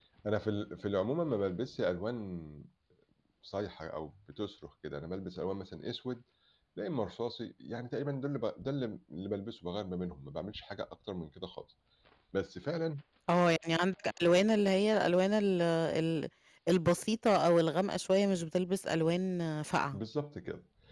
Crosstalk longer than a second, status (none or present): none